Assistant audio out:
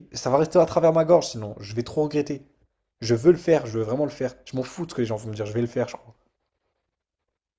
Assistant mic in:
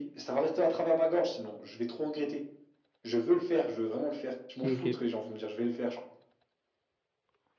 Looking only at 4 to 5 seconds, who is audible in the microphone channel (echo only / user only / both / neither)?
both